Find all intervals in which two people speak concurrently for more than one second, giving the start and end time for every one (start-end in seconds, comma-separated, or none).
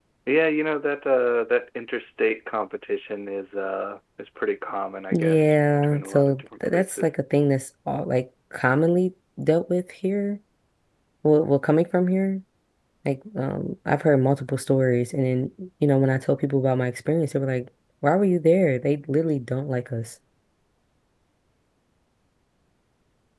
5.1-7.1